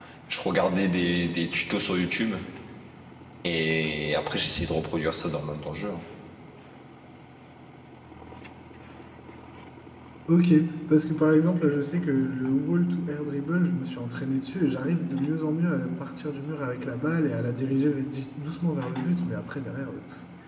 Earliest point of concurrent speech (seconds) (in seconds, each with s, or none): none